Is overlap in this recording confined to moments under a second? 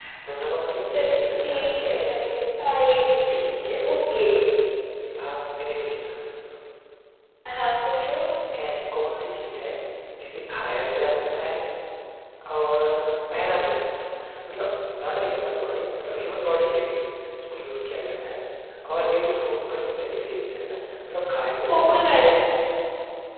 No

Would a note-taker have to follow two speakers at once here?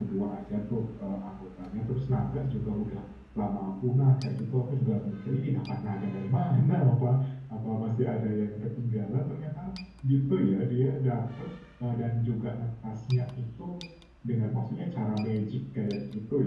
No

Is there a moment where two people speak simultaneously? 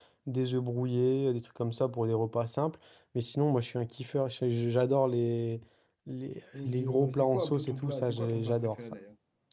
Yes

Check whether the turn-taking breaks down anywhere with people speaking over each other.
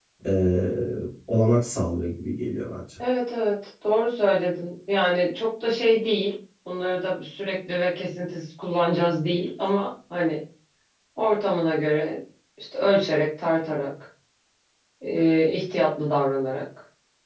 No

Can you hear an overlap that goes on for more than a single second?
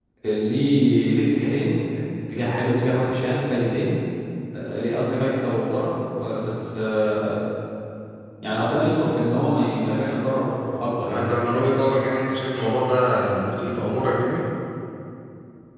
No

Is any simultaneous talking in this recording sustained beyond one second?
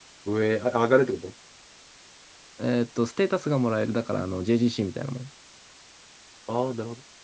No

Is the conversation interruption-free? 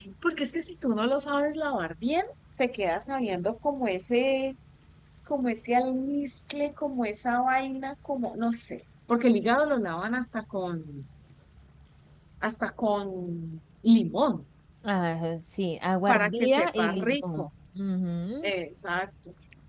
No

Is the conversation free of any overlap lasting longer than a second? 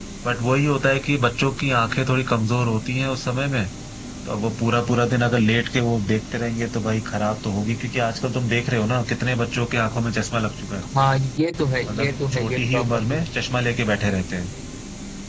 No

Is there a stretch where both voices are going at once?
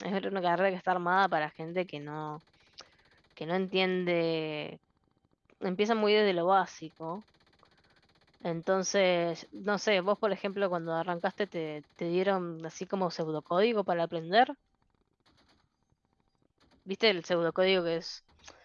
No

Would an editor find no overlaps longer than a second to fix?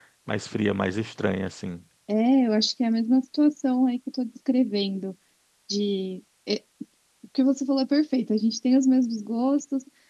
Yes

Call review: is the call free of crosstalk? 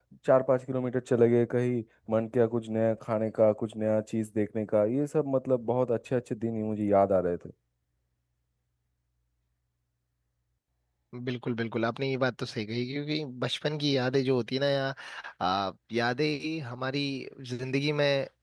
Yes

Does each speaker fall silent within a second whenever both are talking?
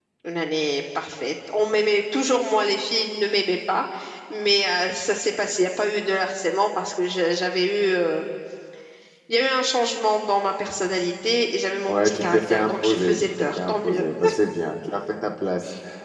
No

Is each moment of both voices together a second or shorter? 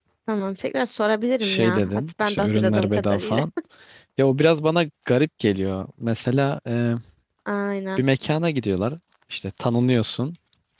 No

